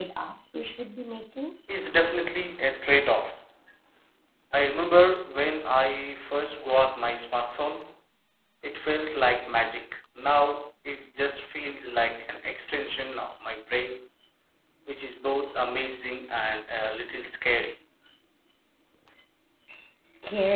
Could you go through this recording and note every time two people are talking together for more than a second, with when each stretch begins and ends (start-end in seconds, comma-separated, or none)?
none